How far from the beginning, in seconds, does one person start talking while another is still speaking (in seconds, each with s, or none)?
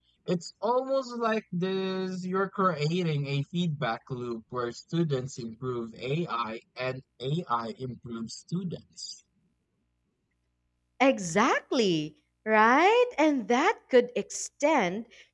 none